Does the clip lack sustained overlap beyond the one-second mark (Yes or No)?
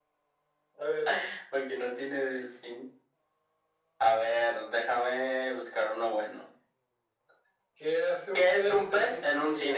No